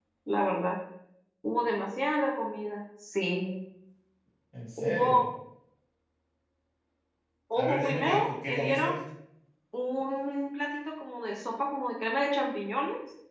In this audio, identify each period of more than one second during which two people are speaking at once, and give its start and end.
7.6-8.9

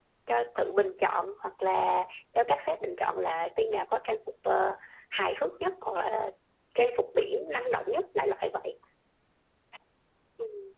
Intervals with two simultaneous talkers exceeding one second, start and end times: none

